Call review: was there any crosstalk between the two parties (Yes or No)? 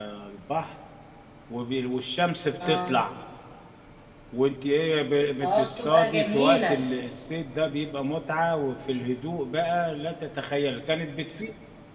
Yes